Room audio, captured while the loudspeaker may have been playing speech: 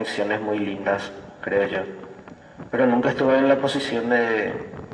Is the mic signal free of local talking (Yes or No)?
Yes